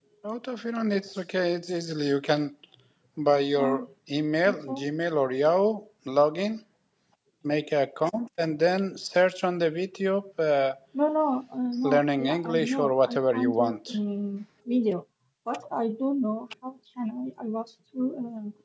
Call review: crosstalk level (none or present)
present